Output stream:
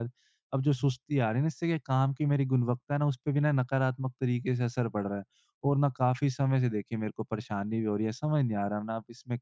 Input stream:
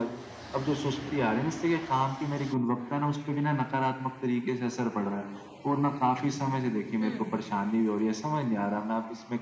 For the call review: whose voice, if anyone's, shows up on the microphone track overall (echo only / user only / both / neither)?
both